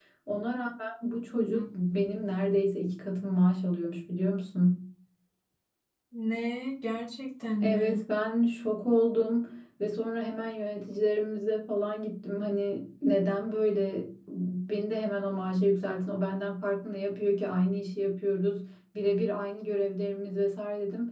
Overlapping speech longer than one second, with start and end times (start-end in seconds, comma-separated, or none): none